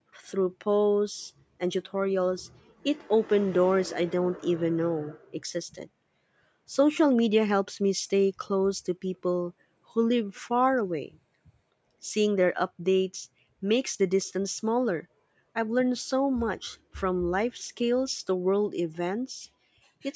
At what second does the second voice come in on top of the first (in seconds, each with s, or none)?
none